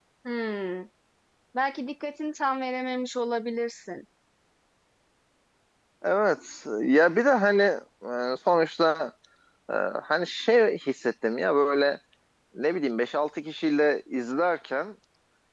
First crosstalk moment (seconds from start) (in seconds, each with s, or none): none